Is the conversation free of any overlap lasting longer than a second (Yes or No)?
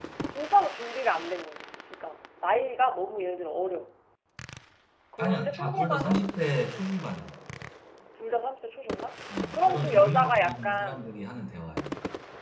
No